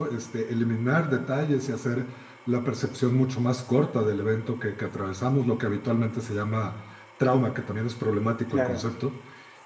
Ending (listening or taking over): listening